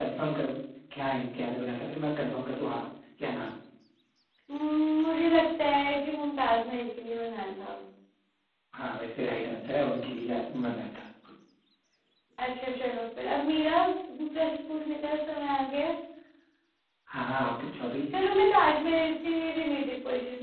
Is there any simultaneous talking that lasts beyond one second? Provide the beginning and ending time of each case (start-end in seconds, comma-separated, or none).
none